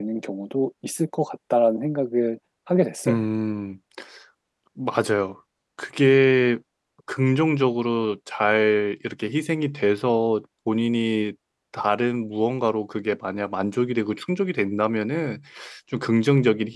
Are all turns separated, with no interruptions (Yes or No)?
Yes